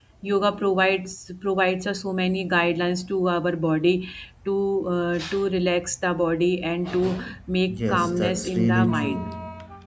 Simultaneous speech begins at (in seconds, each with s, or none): 7.7 s